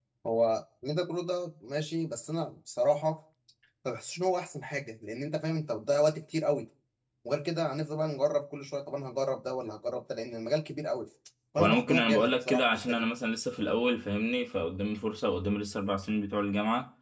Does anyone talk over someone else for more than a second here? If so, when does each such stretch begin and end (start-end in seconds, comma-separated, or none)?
11.6-13.0